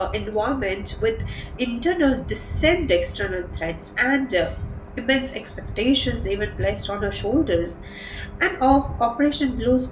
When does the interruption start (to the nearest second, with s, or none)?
none